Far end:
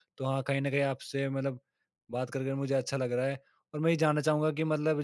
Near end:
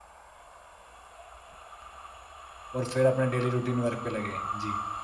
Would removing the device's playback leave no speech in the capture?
No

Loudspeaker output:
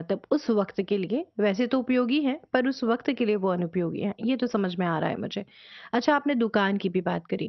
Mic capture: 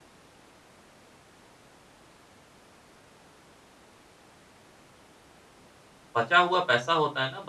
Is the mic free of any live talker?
No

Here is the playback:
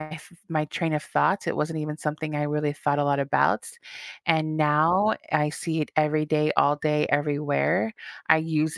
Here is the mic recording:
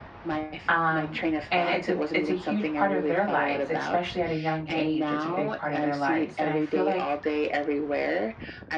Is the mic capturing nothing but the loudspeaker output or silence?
No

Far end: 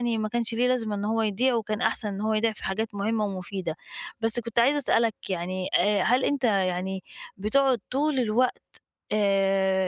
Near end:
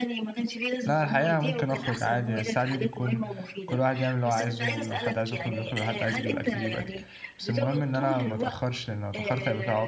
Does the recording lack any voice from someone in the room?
No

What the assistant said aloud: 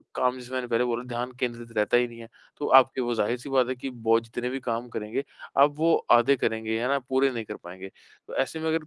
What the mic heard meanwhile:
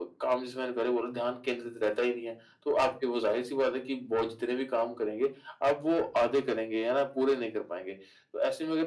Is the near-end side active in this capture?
No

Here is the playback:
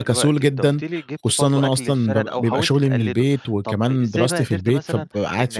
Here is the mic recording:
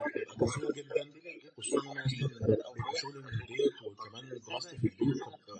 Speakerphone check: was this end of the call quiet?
Yes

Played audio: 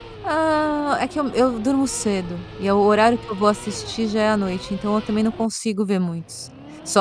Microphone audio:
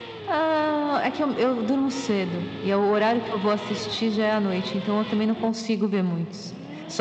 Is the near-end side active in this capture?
No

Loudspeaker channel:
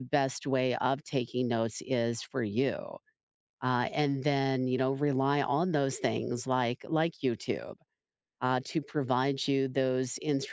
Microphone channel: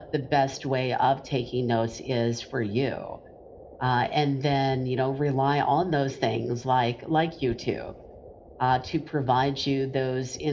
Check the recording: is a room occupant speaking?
No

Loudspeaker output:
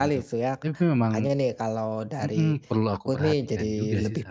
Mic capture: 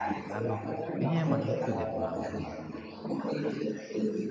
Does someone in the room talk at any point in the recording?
Yes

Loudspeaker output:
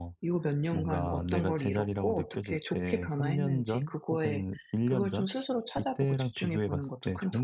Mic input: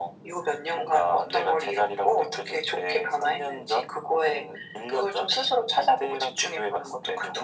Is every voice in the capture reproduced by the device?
Yes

